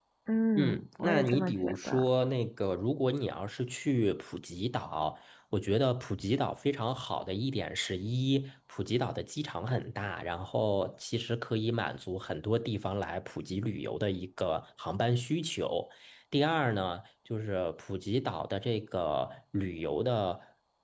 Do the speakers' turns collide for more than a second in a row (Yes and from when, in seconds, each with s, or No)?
Yes, from 0.6 s